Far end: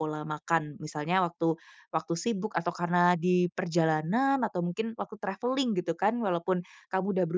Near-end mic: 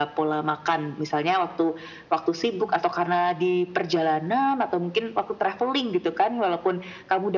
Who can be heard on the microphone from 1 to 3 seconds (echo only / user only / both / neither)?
echo only